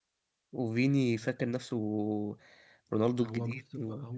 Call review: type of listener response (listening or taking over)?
taking over